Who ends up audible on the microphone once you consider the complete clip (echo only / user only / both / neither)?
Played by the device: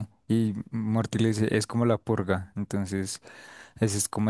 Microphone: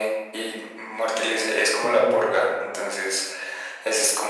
both